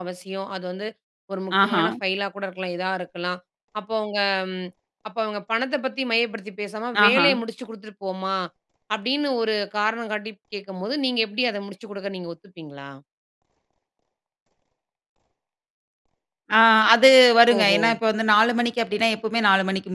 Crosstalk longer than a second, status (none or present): none